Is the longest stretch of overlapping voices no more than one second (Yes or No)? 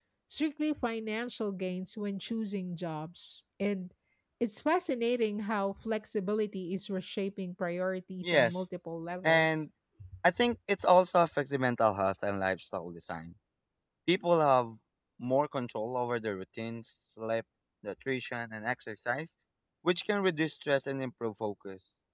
Yes